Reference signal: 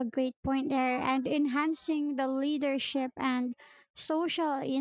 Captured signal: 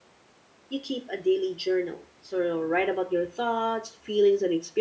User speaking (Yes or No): Yes